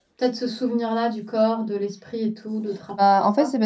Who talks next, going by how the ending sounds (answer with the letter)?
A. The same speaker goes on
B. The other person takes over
B